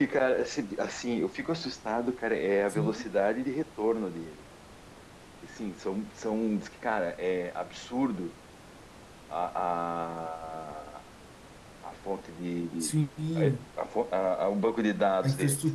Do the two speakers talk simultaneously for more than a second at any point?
No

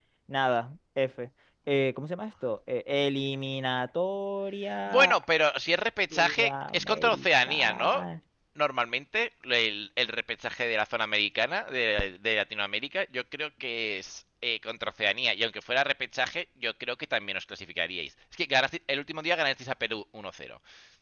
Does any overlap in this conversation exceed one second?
Yes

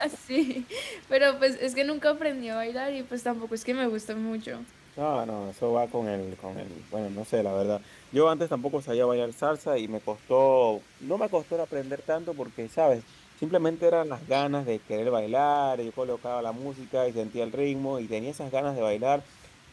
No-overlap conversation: Yes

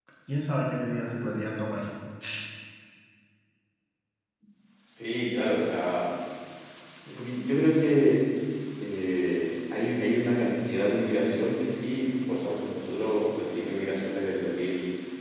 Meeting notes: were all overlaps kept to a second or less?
Yes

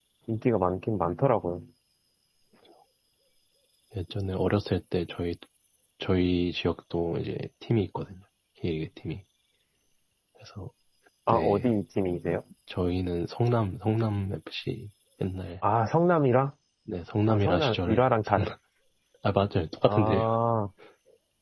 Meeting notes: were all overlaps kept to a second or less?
No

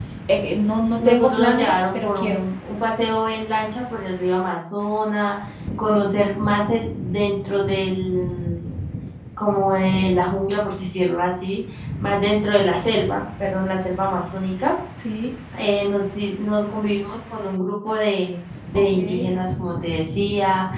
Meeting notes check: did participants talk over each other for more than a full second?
Yes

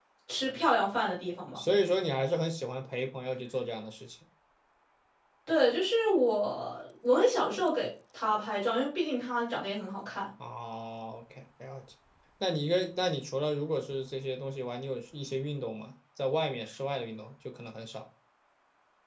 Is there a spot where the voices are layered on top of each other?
No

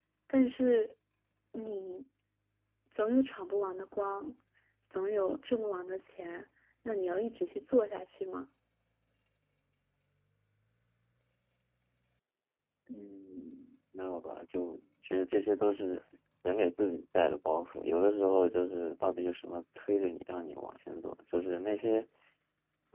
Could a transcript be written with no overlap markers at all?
Yes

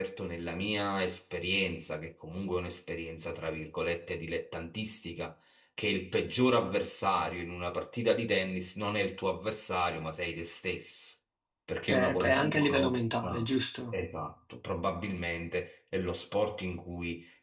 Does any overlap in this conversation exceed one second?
Yes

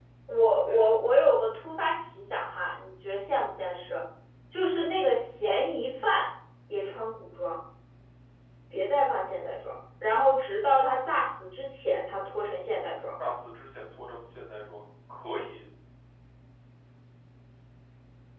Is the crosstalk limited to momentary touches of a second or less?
Yes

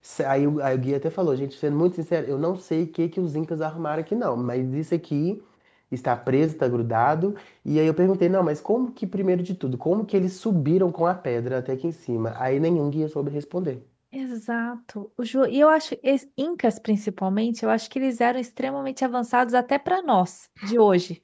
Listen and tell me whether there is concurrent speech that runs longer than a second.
No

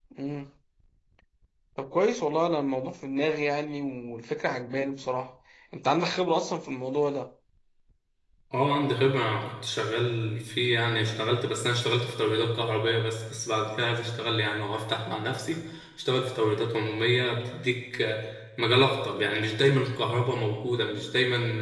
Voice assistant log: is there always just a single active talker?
Yes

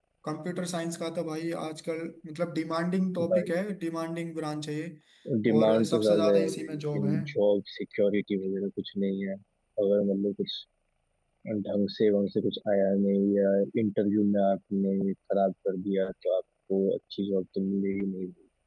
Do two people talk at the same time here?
Yes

